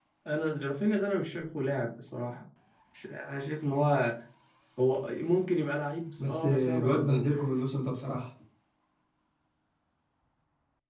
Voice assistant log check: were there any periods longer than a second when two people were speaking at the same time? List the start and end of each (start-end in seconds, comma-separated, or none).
6.2-7.4